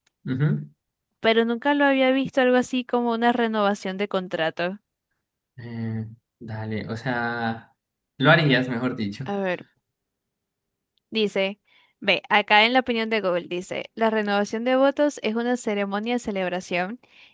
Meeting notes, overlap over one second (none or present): none